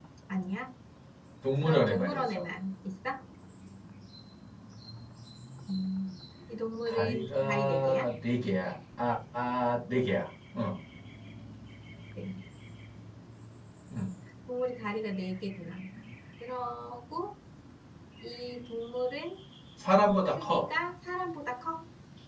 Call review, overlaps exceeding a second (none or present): present